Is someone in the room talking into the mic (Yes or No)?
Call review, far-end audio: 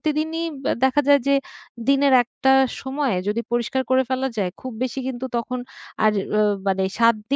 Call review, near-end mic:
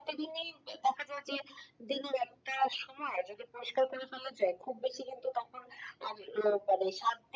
No